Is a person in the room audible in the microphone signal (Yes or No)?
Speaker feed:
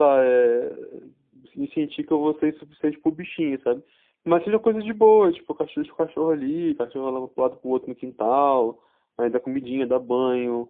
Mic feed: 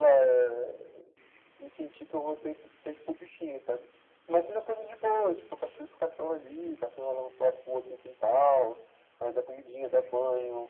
No